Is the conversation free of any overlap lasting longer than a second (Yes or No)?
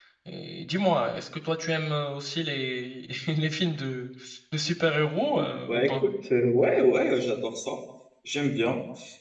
Yes